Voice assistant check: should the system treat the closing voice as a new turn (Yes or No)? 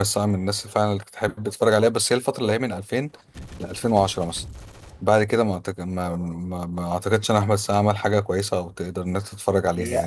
Yes